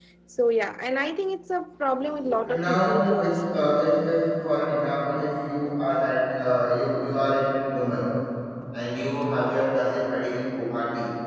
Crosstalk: present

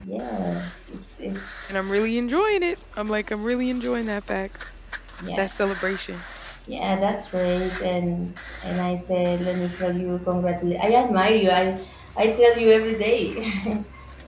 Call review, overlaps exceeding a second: none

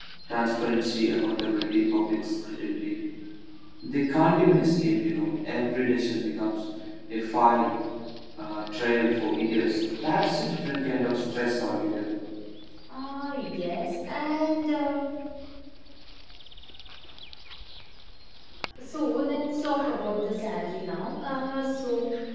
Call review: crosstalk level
none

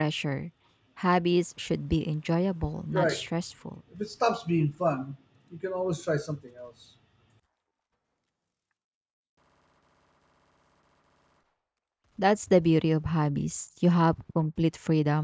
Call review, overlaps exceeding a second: none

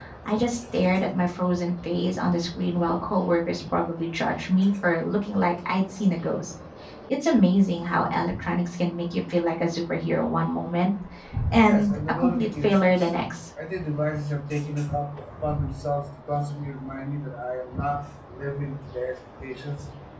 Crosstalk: present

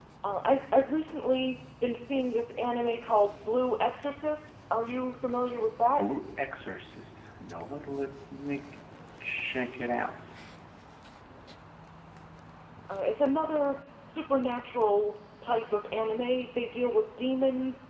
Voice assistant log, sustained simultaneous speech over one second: none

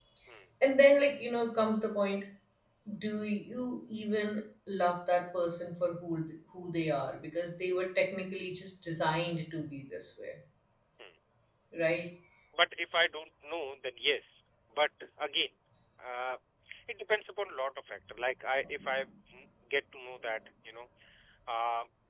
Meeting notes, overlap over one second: none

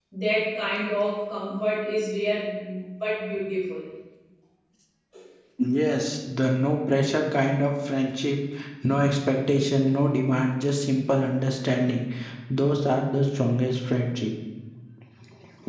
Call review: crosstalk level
none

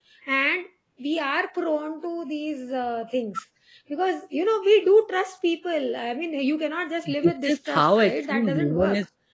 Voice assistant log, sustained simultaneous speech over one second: present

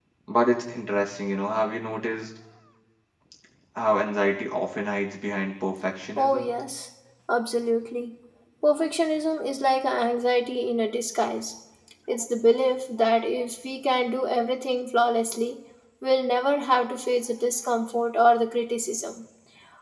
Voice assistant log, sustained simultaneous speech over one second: none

